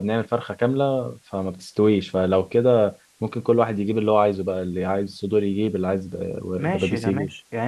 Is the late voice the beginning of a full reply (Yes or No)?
Yes